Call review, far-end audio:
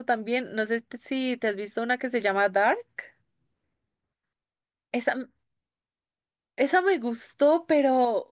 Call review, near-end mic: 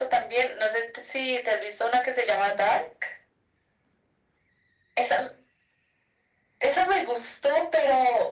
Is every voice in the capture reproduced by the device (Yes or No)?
Yes